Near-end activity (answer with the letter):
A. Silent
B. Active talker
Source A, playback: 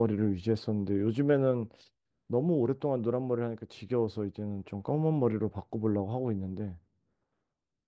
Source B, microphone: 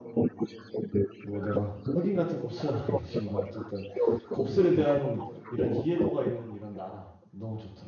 B